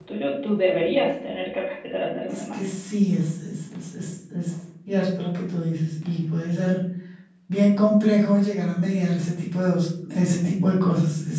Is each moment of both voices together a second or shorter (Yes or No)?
Yes